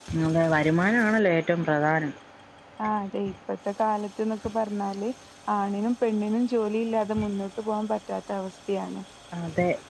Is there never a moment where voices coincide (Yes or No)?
Yes